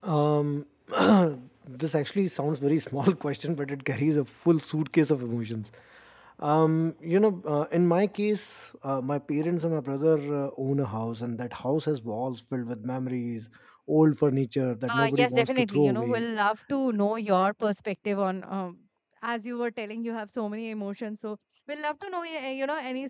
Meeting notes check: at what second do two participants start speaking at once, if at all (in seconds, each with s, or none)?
14.9 s